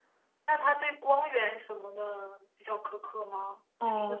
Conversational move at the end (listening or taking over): taking over